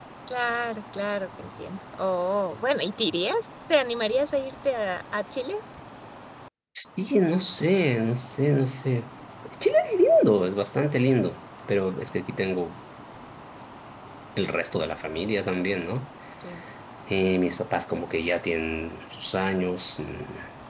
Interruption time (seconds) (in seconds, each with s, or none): none